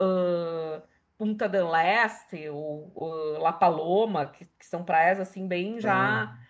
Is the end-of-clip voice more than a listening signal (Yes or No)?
No